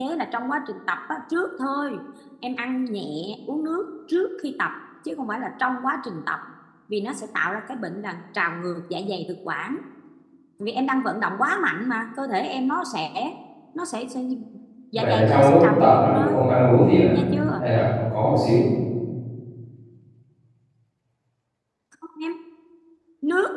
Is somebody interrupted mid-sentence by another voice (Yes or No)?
Yes